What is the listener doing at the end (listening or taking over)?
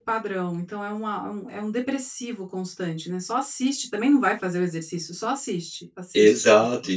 taking over